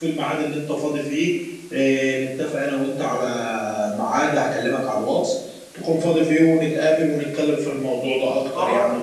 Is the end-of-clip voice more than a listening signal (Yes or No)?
Yes